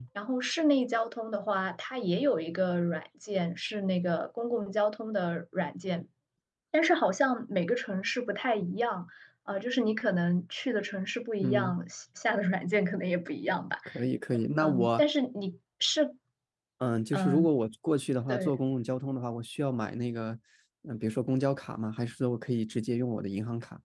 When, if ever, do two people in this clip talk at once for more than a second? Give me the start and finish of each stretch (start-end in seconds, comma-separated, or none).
none